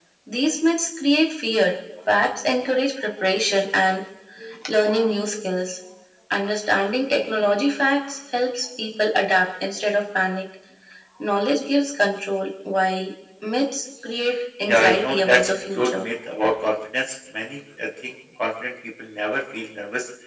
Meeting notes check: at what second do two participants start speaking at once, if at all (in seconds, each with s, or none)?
14.7 s